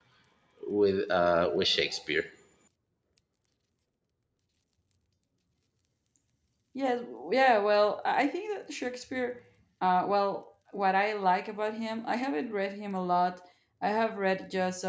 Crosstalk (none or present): none